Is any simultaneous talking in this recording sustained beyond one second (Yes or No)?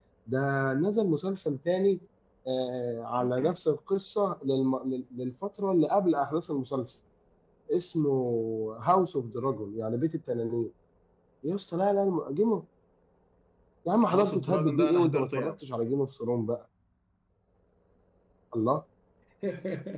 Yes